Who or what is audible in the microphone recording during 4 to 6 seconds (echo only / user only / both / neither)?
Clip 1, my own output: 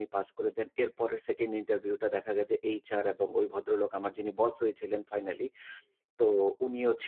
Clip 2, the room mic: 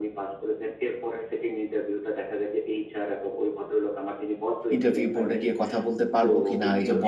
both